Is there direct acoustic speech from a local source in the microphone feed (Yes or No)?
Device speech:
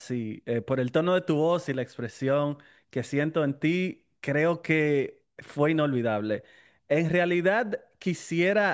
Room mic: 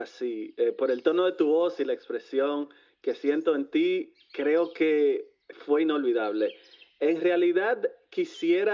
No